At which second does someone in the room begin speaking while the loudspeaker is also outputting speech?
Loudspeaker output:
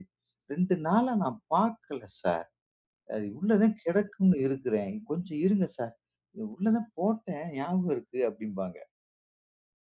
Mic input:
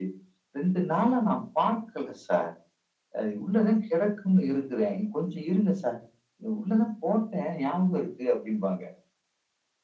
none

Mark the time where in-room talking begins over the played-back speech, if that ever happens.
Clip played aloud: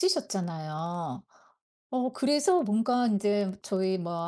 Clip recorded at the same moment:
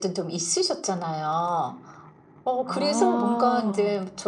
3 s

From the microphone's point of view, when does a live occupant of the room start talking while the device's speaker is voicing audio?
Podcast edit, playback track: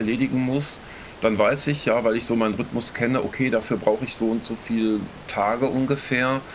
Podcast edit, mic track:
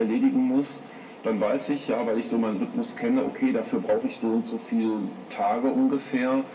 none

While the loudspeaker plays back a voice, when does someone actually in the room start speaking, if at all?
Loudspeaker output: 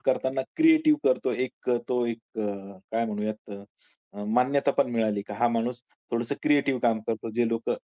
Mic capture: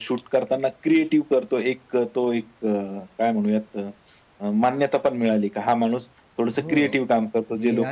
7 s

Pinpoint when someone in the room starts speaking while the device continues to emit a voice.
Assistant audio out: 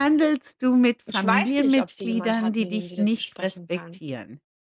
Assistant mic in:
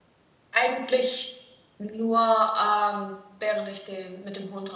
1 s

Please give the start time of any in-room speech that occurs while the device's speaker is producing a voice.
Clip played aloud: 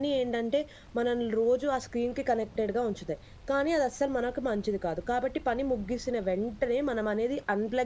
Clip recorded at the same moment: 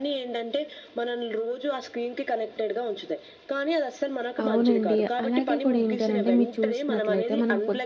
4 s

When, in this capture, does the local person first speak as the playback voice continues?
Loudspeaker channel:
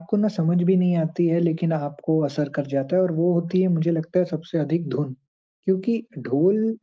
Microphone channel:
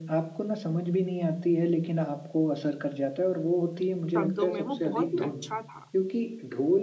4 s

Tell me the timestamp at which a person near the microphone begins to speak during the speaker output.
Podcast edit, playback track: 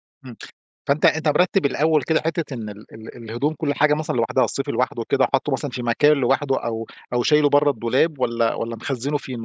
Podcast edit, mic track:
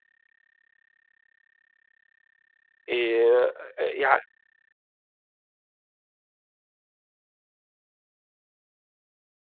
3 s

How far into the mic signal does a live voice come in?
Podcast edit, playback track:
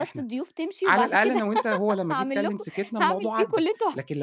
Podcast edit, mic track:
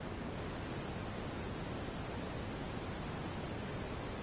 none

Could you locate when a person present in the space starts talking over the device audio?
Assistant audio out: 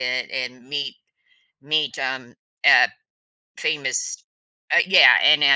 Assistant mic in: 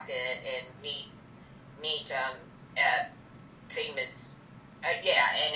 none

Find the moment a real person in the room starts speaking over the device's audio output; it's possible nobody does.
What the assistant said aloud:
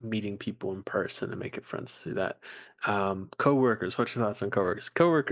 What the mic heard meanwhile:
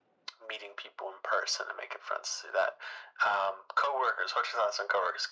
none

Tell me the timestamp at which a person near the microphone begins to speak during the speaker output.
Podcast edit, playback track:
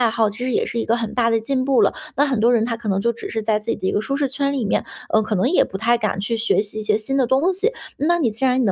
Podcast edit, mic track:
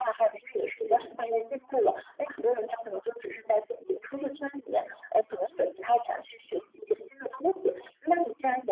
1 s

